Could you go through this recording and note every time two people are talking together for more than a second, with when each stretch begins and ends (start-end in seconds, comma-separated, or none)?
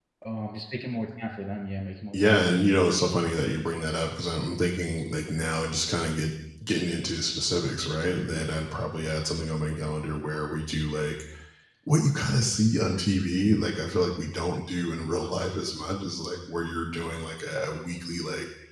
none